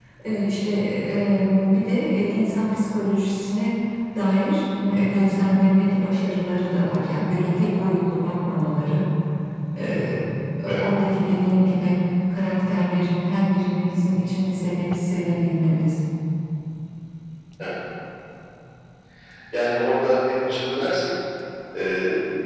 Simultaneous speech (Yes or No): No